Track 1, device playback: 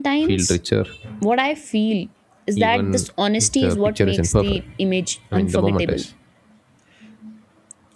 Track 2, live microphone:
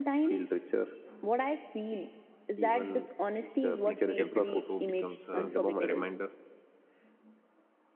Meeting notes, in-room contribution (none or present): present